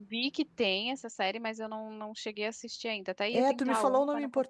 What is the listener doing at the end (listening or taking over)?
taking over